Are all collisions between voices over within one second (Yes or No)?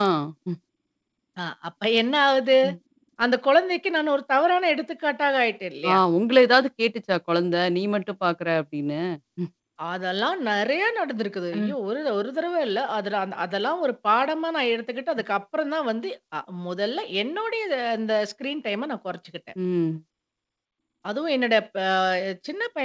Yes